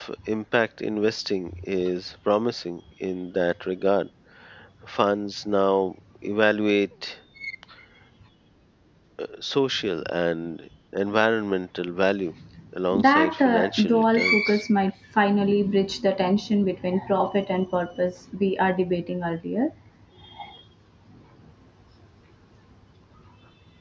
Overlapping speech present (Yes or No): Yes